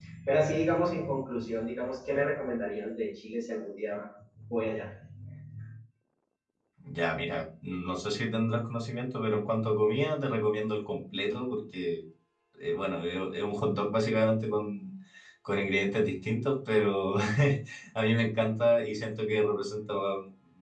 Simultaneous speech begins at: none

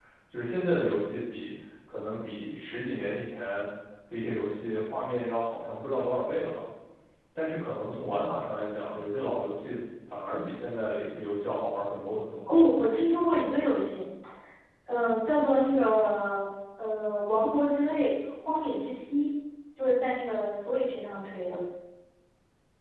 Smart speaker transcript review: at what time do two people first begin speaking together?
none

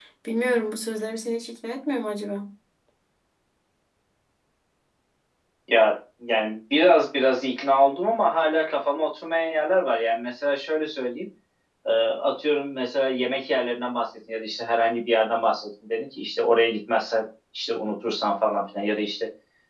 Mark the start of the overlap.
none

